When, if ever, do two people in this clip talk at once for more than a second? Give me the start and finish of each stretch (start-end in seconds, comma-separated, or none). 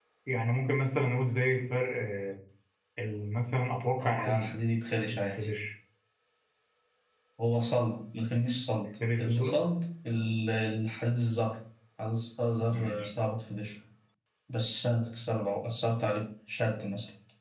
none